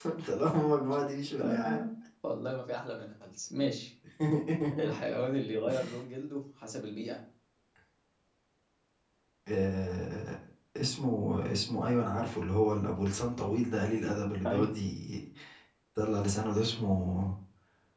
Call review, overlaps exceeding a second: none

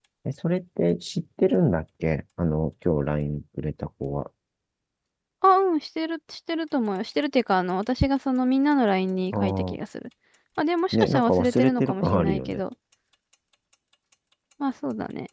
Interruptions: present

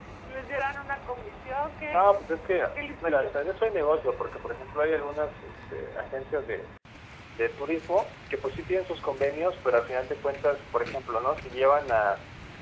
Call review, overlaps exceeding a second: present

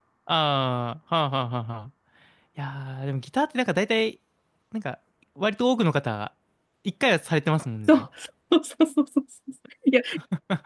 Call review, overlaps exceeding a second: none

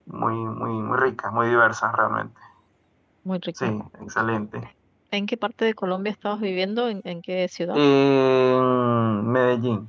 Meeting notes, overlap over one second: none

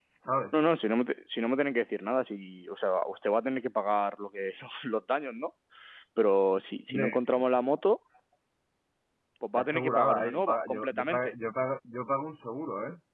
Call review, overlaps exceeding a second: present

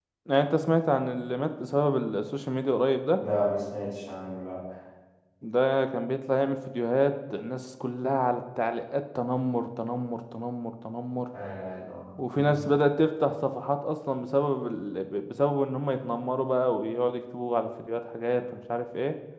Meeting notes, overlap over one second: none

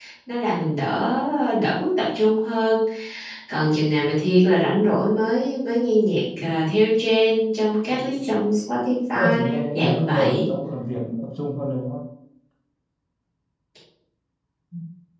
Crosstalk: present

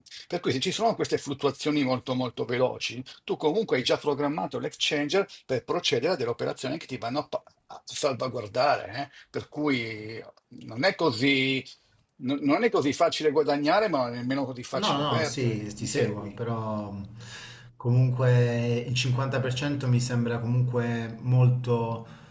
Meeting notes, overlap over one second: present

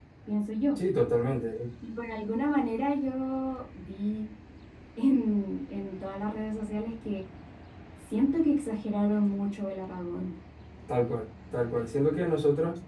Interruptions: none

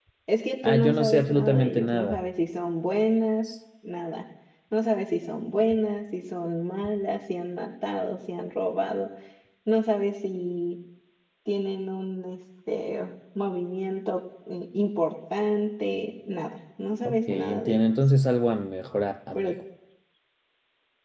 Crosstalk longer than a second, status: present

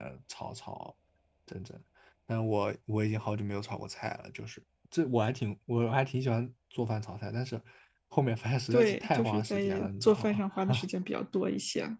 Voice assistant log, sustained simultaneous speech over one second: present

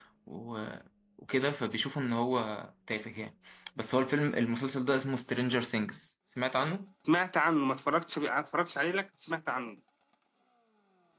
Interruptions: none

